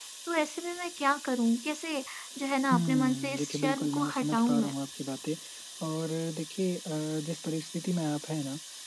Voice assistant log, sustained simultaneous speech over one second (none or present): present